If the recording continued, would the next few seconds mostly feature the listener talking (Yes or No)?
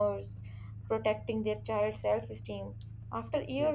No